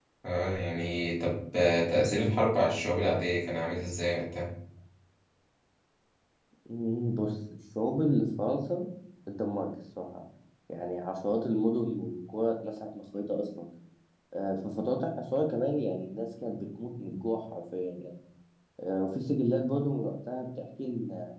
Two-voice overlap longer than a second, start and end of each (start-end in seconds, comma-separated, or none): none